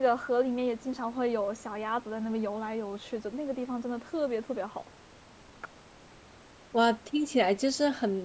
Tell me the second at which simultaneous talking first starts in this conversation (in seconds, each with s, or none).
none